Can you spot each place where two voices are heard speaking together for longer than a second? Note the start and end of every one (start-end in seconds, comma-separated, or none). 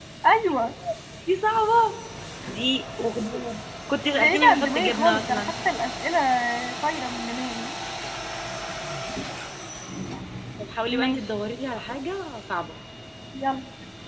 4.0-5.5